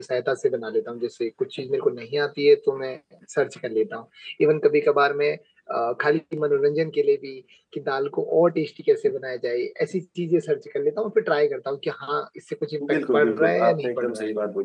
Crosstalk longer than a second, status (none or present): present